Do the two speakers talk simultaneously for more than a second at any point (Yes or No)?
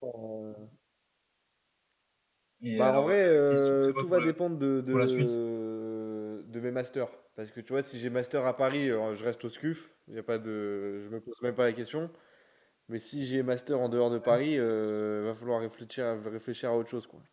Yes